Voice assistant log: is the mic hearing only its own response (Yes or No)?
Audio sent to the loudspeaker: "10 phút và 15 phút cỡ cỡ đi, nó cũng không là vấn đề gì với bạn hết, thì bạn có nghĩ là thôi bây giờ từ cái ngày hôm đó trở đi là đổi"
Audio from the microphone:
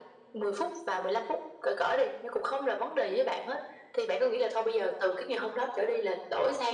Yes